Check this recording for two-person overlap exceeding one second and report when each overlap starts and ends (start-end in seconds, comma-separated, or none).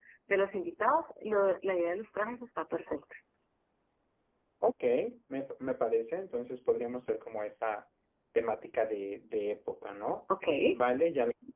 none